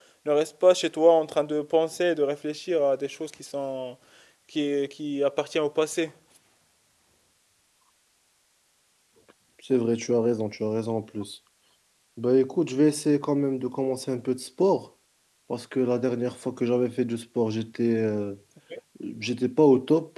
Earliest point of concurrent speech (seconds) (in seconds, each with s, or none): none